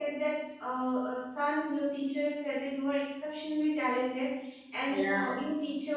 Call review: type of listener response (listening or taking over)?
listening